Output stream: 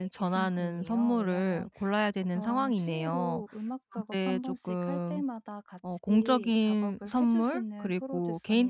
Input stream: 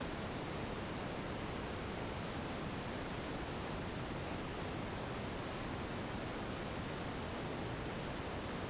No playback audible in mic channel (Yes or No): Yes